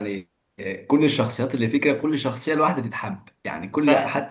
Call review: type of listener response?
taking over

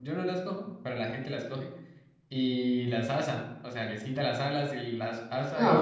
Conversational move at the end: taking over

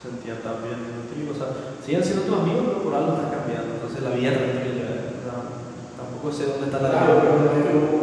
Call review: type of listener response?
taking over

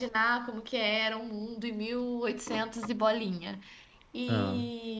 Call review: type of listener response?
listening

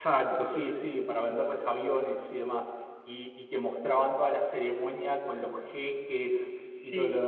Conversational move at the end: taking over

